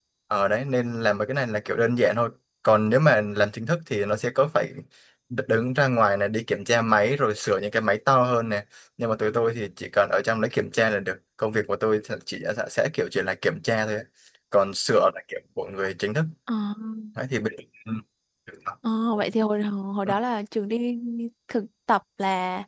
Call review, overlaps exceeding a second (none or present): none